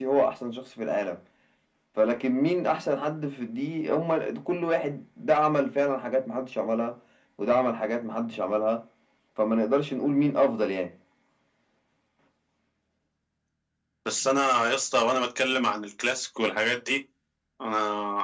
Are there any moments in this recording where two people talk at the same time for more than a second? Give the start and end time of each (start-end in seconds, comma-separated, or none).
none